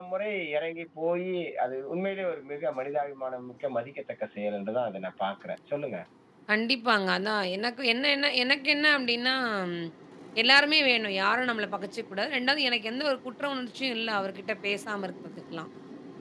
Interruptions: none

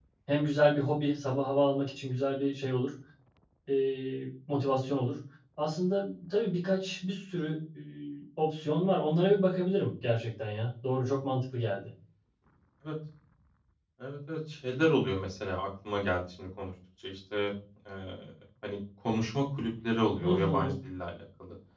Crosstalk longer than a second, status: none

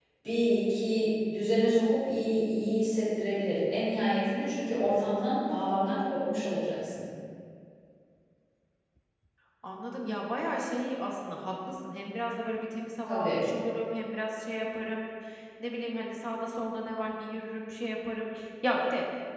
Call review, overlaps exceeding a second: none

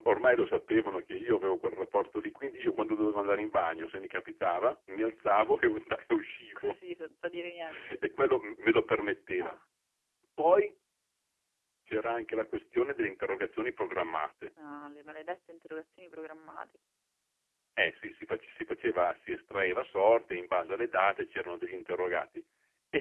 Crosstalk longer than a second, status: none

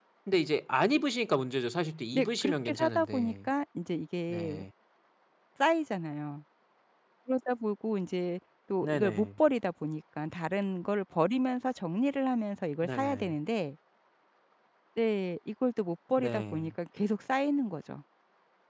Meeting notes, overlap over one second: present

